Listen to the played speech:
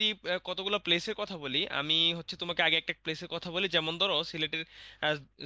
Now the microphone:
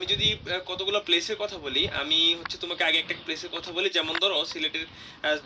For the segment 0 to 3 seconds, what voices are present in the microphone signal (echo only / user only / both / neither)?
echo only